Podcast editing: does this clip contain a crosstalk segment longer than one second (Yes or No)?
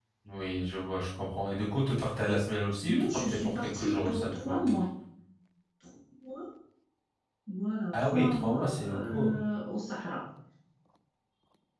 Yes